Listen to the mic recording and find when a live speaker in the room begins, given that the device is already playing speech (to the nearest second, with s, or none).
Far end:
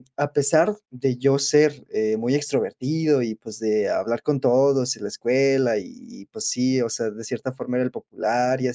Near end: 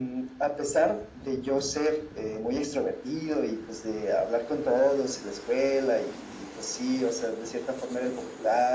none